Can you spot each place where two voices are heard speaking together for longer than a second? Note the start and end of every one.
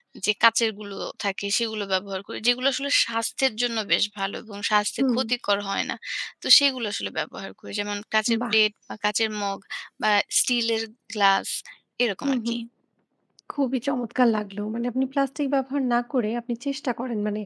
none

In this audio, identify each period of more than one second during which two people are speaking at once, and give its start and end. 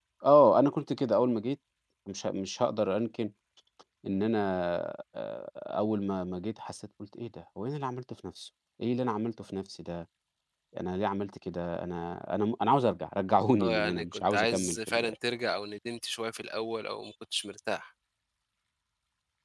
13.6-15.1

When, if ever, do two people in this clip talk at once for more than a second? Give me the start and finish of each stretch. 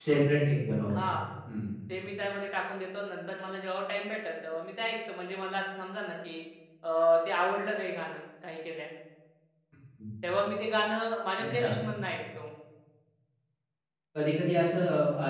none

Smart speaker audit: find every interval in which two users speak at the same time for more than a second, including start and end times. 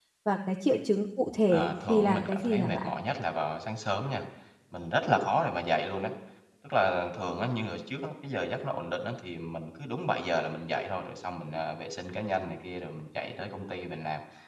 1.5-2.9

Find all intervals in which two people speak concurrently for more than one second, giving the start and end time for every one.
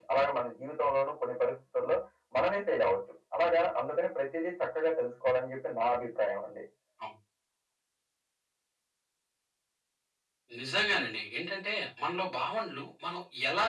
none

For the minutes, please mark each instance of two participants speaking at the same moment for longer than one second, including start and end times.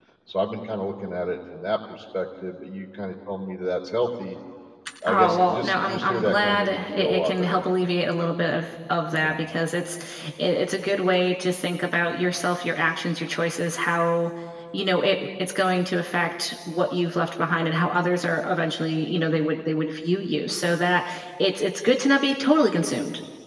5.1-7.6

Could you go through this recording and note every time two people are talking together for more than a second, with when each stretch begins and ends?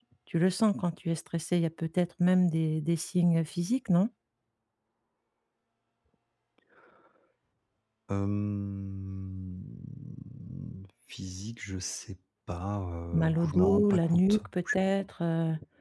13.1-14.4

